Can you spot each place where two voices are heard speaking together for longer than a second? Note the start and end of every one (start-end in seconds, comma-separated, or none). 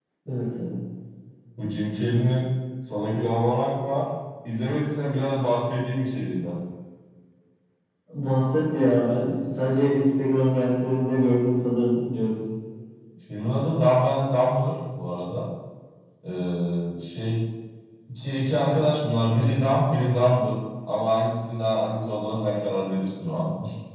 none